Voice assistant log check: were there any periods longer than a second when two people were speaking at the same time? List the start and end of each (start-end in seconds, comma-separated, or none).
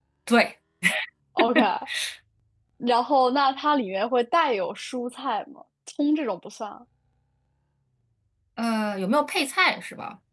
none